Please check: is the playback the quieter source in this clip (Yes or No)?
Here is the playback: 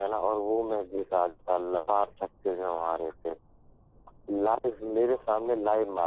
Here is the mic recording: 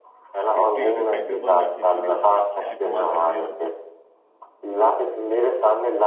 No